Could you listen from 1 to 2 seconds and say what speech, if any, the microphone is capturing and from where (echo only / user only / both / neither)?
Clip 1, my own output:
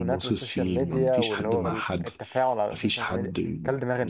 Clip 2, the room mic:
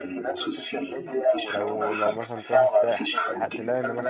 both